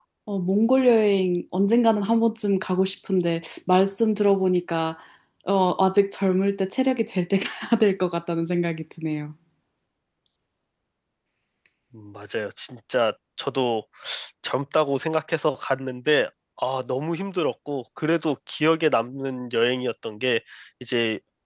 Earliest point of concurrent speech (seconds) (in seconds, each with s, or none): none